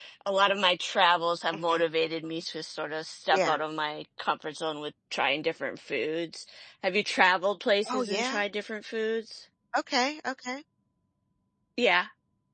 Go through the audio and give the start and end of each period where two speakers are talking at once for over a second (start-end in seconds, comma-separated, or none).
none